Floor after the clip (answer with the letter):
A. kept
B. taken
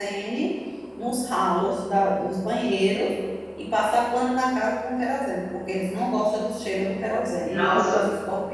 A